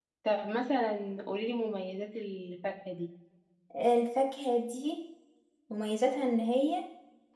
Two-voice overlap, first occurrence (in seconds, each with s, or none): none